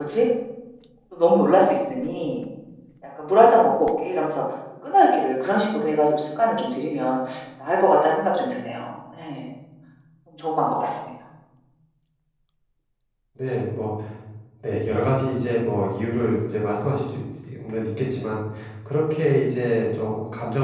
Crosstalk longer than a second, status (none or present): none